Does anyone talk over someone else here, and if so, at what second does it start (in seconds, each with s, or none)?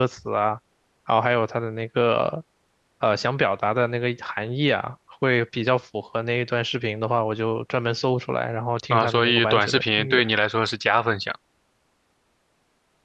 8.9 s